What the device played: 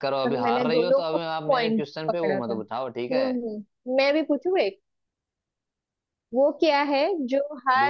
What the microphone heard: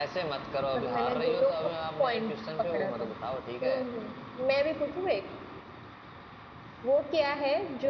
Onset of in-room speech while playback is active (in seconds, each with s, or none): none